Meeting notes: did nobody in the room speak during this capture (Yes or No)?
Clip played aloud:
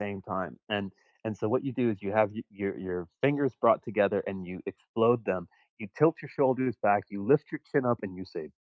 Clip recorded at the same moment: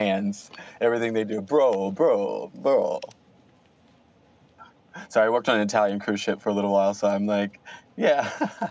No